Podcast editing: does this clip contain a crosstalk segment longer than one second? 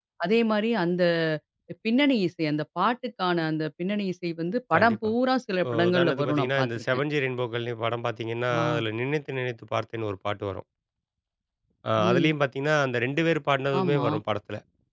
Yes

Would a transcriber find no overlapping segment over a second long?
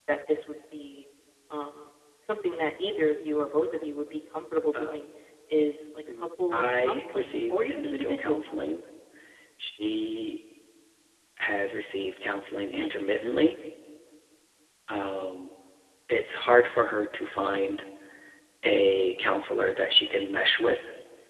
No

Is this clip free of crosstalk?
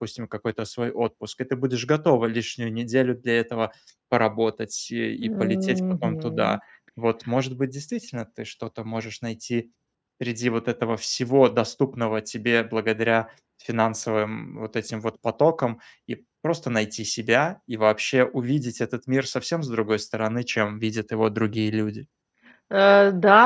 No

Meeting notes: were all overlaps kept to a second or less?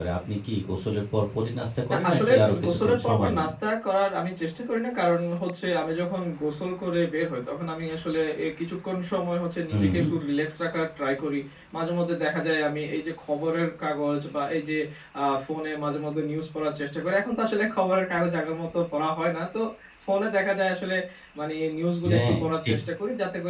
No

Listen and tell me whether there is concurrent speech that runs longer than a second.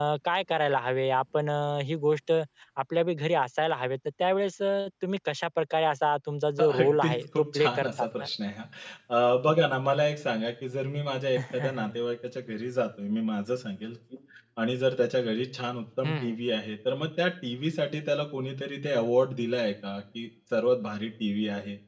Yes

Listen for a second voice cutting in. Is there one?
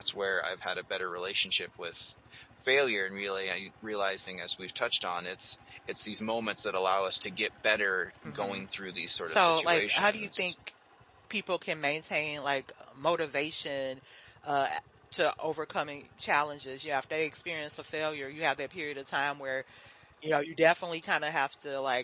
Yes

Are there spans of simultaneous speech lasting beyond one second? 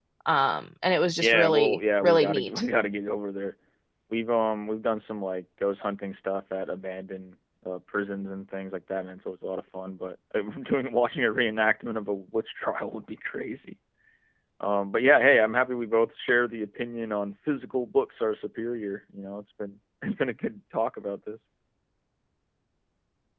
Yes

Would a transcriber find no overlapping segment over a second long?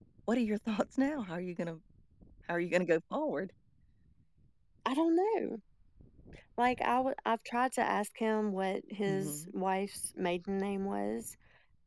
Yes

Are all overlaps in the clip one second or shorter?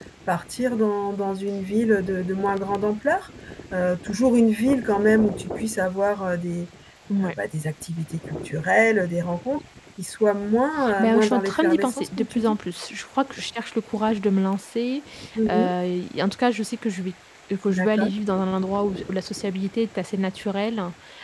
No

